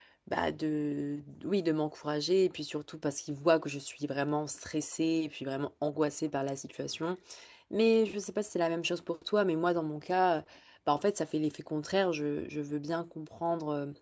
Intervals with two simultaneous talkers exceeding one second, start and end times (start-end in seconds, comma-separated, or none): none